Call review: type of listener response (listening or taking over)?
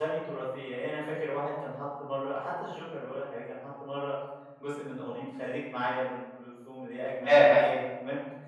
listening